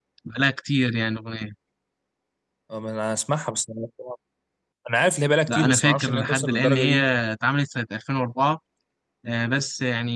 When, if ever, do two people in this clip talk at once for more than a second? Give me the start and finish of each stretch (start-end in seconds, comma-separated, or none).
5.5-7.0